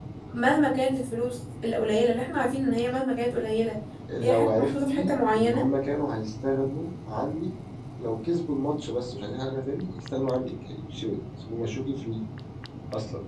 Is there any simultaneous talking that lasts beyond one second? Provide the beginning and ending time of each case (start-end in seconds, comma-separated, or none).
4.2-5.7